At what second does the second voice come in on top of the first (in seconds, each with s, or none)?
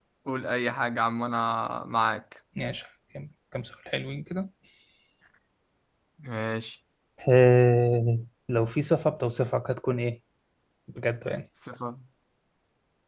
none